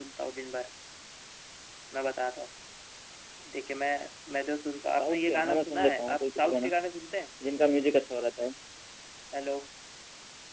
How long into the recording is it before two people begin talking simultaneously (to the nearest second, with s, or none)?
5 s